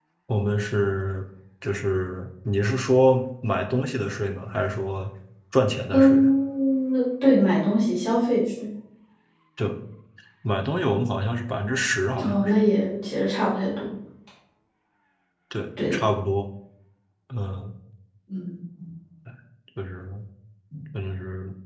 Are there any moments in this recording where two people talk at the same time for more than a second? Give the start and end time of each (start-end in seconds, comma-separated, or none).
none